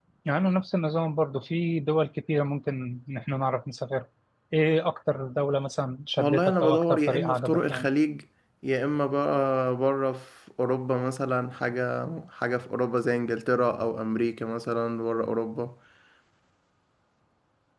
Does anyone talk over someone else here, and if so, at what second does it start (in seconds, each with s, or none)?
6.1 s